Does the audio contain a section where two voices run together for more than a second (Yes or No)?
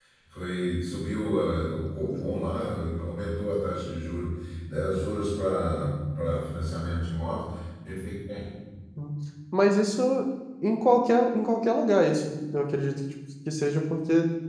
No